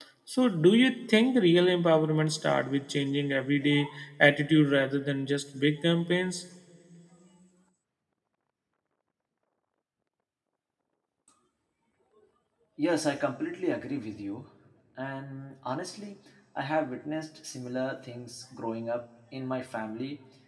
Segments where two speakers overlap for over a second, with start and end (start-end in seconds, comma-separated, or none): none